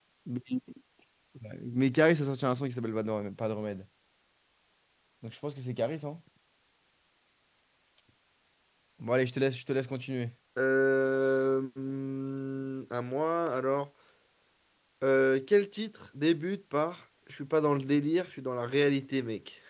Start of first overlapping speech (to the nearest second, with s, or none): none